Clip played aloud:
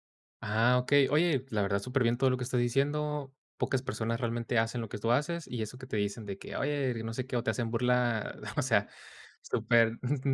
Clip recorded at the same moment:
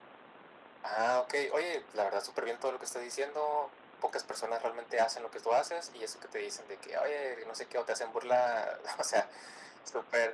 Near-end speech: none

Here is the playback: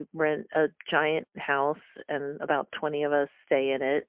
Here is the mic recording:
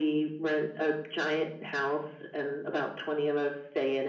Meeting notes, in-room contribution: none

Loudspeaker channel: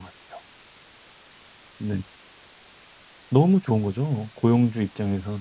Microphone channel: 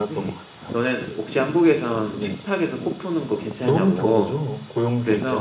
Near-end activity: present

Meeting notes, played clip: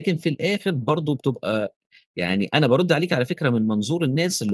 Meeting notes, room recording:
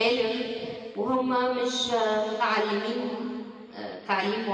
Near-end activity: present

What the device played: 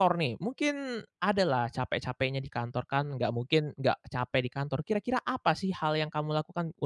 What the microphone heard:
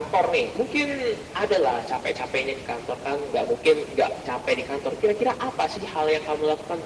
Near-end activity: none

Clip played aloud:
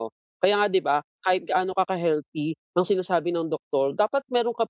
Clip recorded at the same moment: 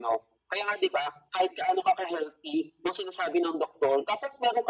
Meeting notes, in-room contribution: none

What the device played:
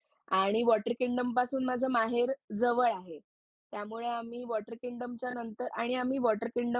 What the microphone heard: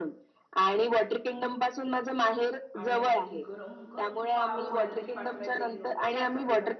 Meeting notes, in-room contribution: present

